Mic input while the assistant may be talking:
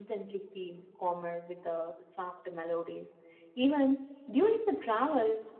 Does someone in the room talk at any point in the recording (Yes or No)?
No